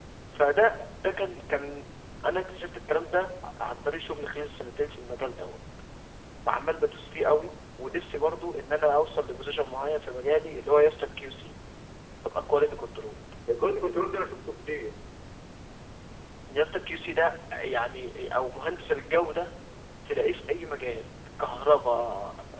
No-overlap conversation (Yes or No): Yes